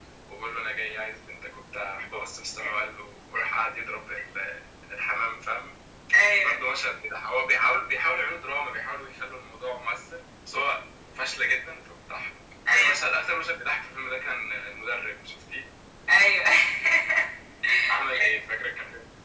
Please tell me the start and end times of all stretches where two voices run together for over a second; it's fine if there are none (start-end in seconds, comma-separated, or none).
none